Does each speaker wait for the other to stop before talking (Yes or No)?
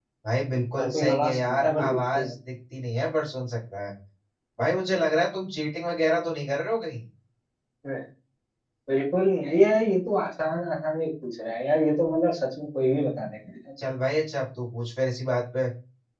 No